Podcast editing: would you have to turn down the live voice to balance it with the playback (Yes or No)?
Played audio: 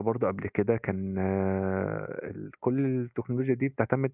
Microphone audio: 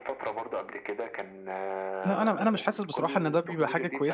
Yes